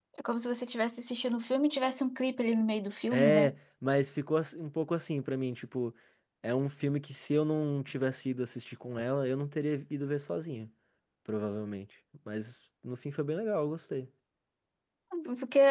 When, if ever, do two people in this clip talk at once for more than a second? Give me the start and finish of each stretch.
none

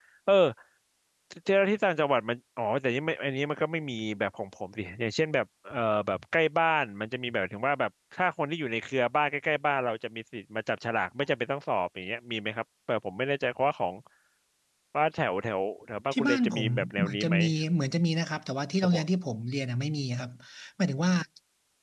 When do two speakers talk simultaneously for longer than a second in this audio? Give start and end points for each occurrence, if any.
16.1-17.4

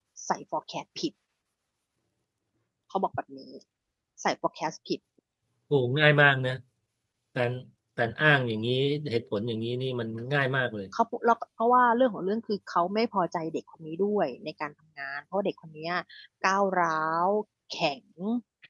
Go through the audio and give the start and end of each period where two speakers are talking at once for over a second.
none

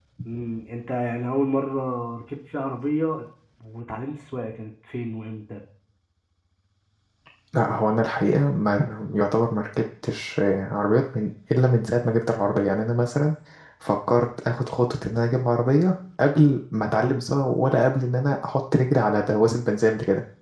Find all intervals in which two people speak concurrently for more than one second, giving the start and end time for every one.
none

